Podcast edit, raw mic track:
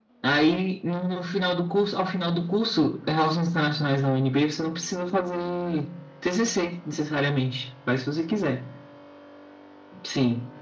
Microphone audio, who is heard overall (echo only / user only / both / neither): echo only